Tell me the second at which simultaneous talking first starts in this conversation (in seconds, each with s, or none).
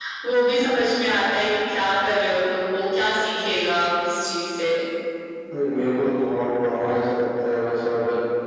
none